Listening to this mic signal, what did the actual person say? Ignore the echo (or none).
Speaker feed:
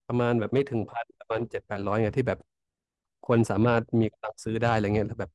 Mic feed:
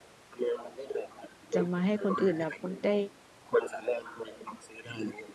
จะมาให้คนอื่นแบบได้